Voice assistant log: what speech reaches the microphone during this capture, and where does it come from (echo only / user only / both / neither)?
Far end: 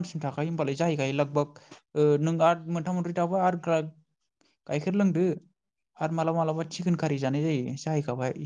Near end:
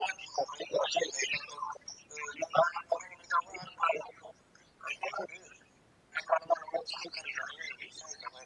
echo only